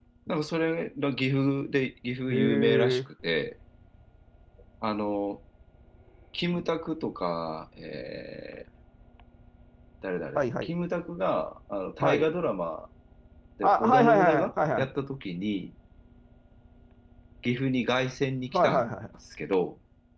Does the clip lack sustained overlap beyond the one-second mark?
No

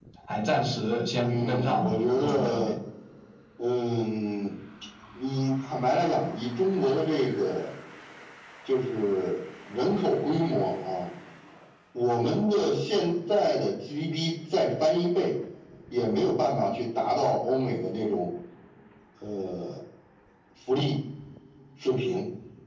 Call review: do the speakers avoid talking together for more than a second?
No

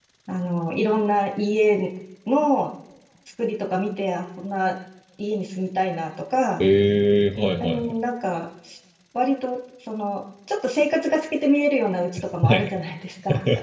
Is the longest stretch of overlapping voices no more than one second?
Yes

